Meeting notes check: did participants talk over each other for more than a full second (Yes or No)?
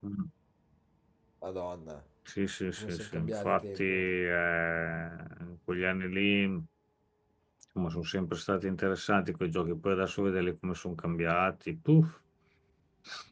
Yes